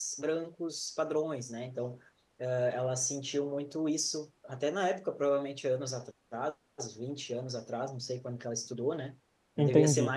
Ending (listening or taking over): listening